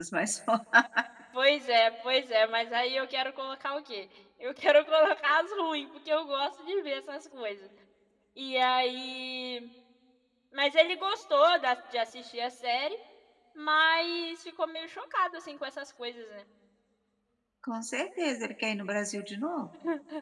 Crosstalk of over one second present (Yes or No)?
No